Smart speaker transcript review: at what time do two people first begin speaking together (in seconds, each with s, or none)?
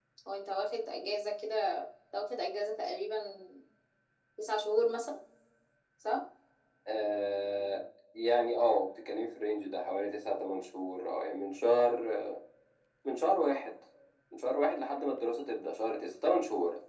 none